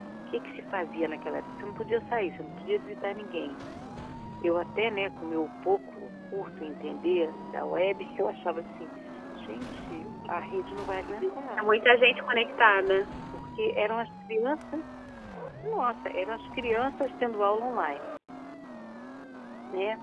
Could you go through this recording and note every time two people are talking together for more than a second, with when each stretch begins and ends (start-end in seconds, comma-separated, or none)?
none